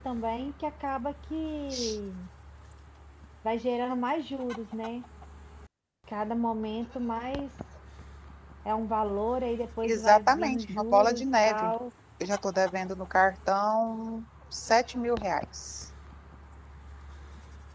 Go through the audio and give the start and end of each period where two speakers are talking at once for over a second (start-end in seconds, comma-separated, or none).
9.8-11.7